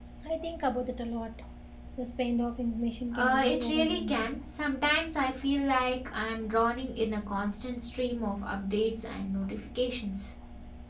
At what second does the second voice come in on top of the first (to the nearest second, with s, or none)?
3 s